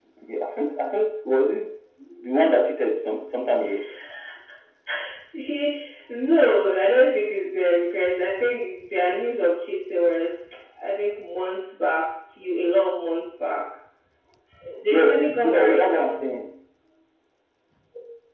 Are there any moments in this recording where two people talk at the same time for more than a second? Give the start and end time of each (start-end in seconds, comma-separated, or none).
14.9-16.1